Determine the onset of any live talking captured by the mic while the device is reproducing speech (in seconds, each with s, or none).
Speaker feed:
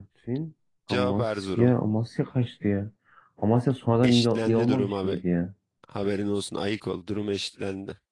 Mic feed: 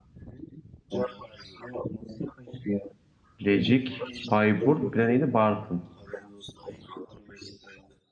3.4 s